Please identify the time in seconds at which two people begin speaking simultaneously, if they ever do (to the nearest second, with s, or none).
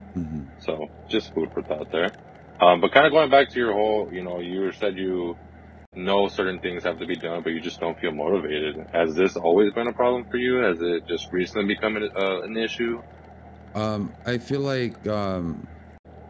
none